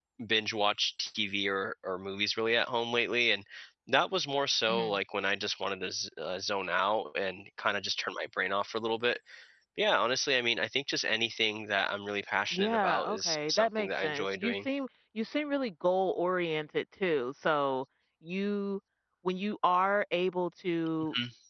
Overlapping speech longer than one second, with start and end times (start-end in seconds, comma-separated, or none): 12.5-14.5